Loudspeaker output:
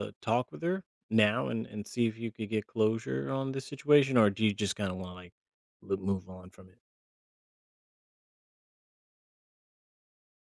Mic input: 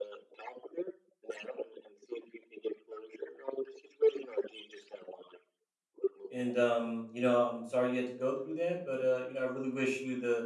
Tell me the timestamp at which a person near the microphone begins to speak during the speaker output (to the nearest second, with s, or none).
6 s